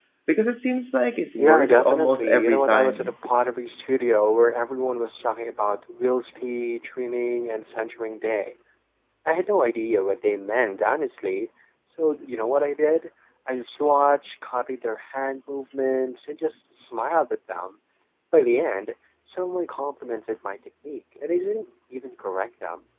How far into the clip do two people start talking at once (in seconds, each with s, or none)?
1.4 s